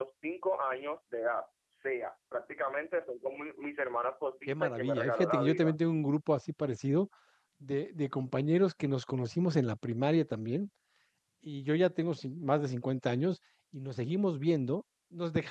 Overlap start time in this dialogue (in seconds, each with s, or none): 4.5 s